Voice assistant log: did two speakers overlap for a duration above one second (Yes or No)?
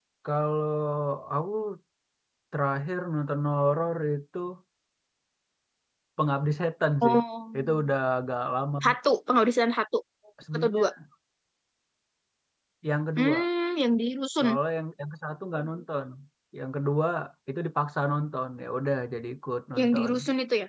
No